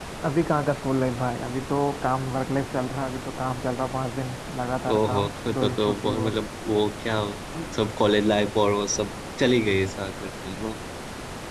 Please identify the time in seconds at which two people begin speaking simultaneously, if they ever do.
4.8 s

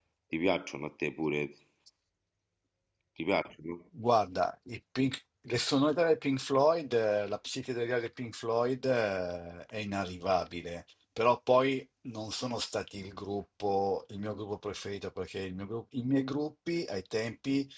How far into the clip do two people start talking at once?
none

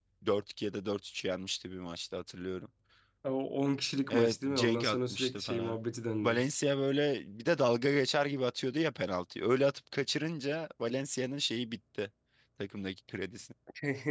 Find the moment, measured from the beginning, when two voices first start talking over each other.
4.1 s

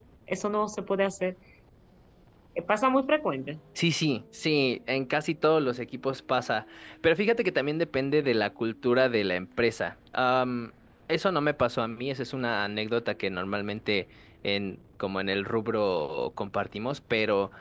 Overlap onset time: none

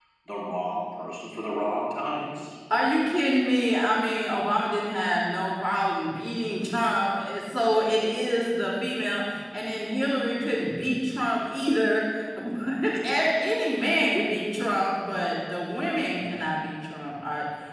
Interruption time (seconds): none

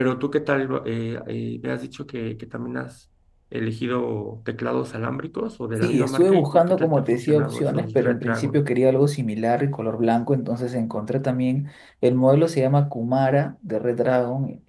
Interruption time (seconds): 5.8 s

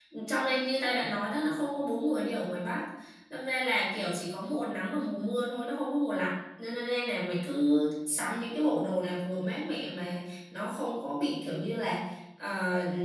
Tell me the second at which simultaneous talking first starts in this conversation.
none

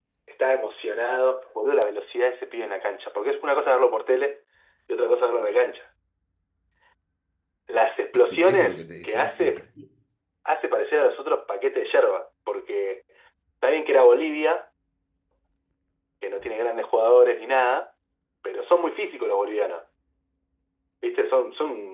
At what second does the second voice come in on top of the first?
8.3 s

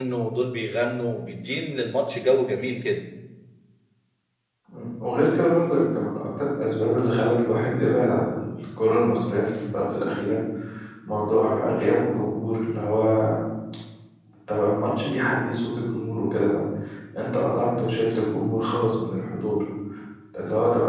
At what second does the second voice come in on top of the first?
none

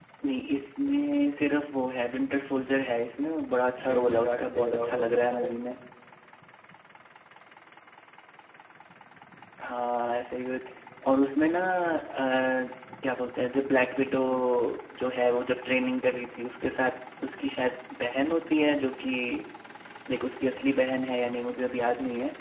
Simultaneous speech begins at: 3.8 s

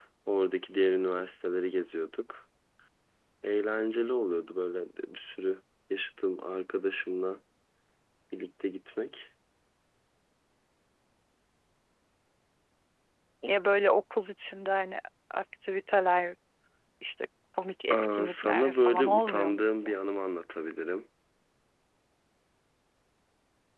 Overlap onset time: 17.9 s

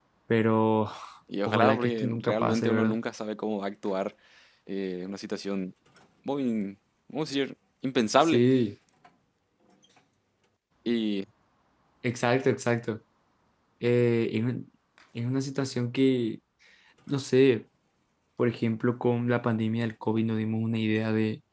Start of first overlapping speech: 1.5 s

